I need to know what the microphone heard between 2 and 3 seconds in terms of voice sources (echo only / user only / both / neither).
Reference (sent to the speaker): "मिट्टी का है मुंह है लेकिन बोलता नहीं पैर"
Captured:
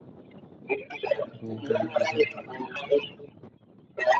both